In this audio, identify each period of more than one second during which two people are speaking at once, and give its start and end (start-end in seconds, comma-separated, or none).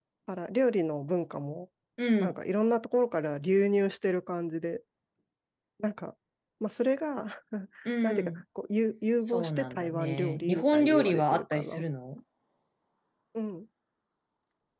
9.2-11.8